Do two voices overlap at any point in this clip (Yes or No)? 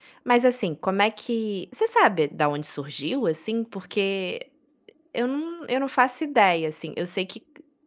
No